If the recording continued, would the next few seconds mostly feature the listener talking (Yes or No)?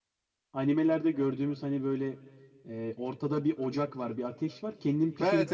Yes